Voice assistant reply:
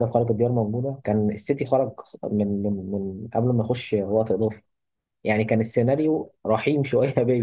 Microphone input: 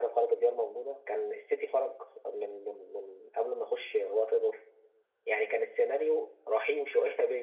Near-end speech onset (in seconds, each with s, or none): none